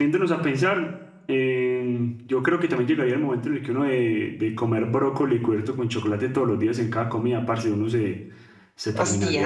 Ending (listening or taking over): listening